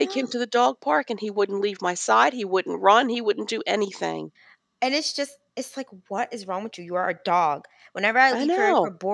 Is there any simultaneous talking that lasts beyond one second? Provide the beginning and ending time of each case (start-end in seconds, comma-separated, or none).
none